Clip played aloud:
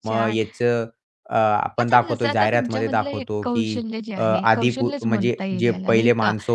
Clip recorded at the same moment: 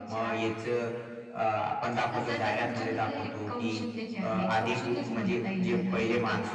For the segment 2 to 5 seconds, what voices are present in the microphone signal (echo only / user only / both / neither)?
echo only